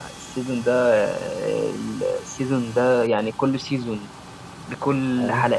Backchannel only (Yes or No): Yes